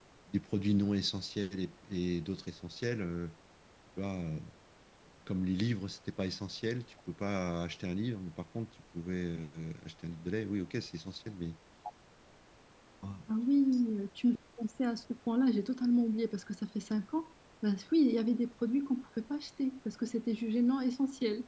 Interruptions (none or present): none